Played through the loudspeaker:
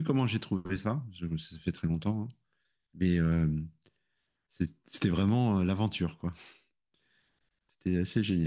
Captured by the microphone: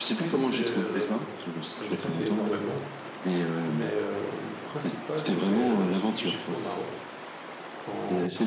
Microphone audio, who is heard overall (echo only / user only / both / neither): both